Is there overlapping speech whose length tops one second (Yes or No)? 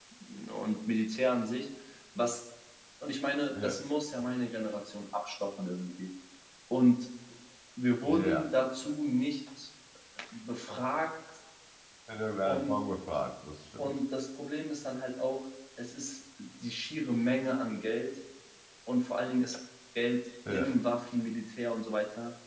No